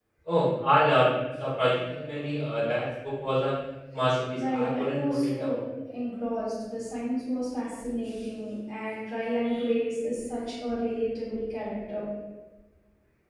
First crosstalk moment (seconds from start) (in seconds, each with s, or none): 4.3 s